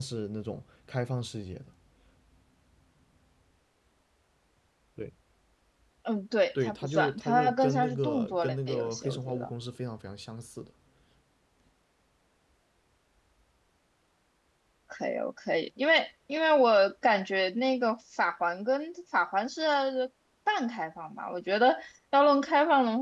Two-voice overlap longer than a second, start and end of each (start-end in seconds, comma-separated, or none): 6.6-9.5